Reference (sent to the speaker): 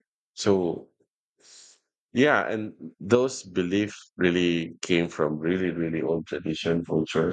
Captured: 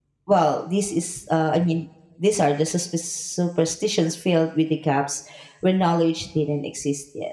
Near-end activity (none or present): present